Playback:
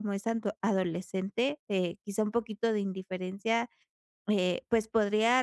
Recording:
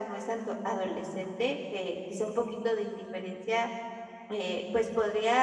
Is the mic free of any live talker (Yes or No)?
Yes